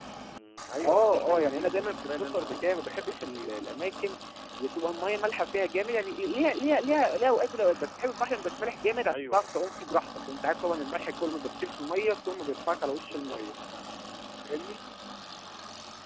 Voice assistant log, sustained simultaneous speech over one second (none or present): present